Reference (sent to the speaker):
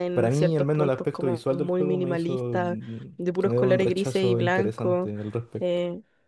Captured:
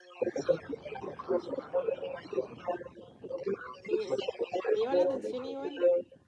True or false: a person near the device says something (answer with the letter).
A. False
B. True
B